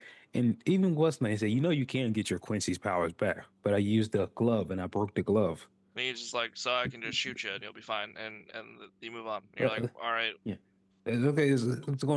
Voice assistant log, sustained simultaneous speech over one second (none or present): none